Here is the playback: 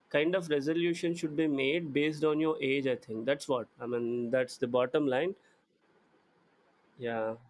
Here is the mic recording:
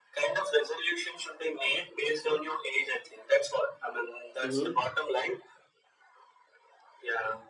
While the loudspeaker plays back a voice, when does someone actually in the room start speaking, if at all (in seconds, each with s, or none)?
4.4 s